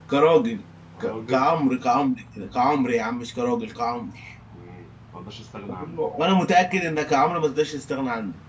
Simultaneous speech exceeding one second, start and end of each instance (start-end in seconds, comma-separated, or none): none